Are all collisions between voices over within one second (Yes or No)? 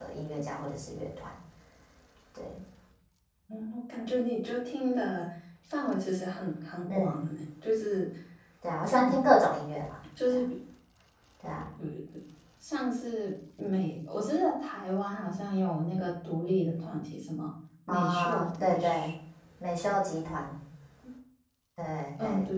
No